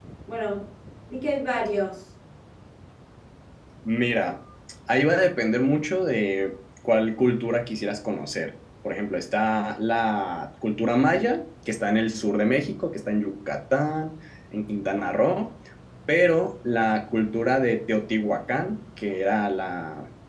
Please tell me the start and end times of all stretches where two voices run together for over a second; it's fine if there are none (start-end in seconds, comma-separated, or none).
none